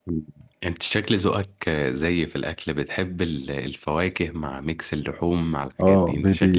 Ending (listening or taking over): taking over